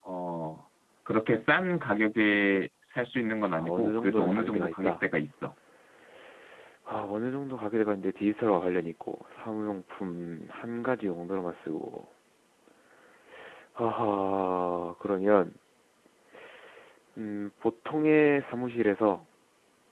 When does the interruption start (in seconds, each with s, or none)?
3.4 s